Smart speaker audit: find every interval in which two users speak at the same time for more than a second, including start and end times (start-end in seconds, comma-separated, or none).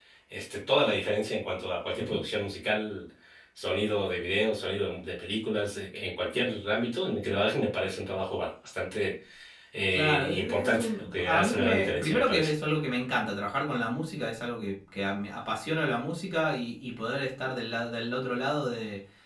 9.9-12.5